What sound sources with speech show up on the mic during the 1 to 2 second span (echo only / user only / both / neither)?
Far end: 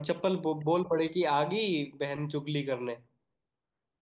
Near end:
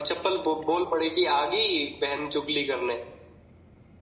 echo only